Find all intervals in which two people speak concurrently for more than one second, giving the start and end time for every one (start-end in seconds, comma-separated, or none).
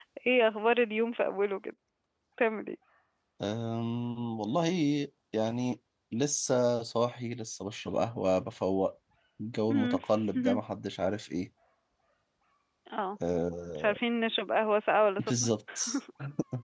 none